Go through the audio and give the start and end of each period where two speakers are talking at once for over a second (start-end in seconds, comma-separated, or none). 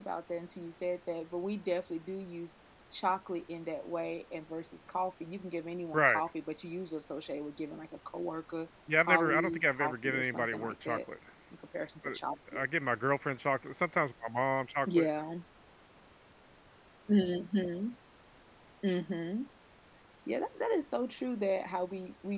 9.0-11.0